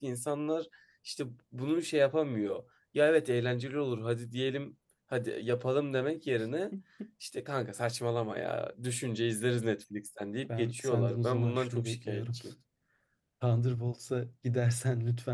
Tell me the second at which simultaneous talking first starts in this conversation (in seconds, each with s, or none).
10.5 s